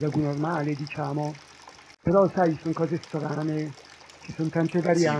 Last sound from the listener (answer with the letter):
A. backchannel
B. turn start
B